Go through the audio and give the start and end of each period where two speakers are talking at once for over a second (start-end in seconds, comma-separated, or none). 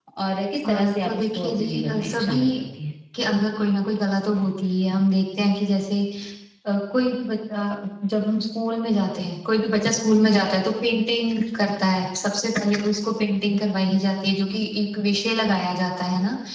0.7-2.4